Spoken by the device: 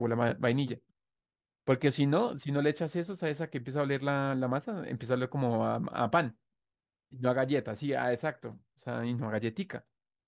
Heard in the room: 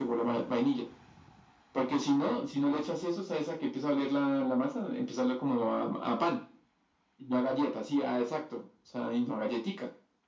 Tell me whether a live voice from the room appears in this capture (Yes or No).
No